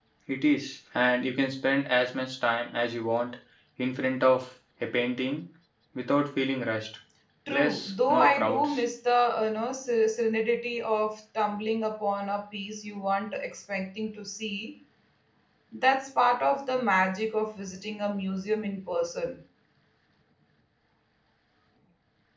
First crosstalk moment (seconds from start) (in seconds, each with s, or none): 7.5 s